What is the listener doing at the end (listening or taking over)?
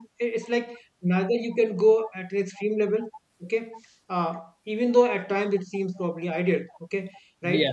listening